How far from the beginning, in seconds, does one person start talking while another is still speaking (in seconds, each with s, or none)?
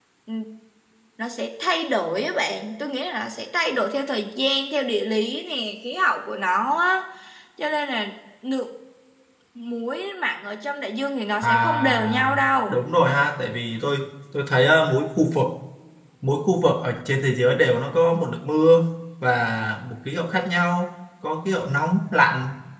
11.4 s